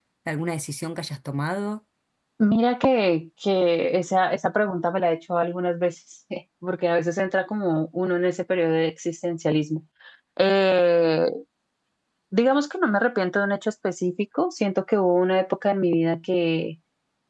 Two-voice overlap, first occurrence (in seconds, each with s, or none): none